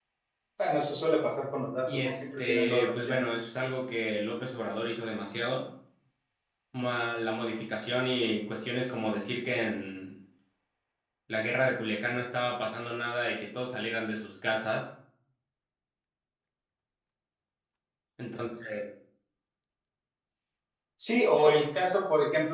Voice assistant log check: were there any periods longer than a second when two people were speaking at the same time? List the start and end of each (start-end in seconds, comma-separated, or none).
1.9-3.3